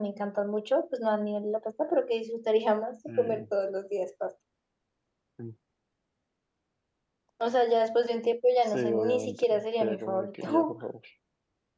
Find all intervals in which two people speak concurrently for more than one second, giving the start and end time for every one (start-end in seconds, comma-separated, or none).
8.6-10.8